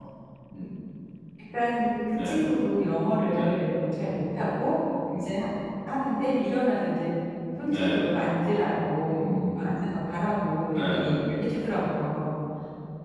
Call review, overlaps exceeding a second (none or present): none